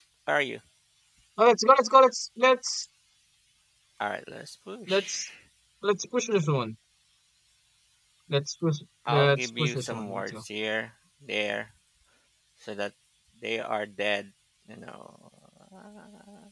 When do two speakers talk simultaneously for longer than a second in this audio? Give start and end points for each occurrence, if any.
9.1-10.4

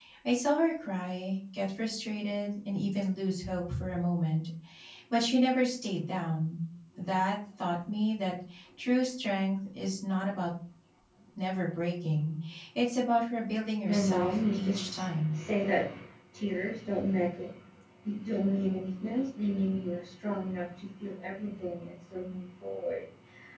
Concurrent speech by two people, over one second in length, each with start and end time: 13.8-15.3

